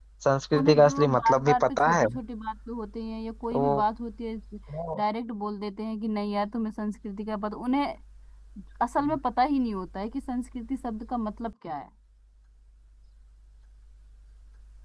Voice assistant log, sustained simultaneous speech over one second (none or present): present